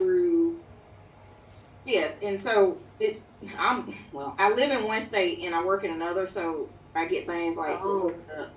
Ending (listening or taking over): listening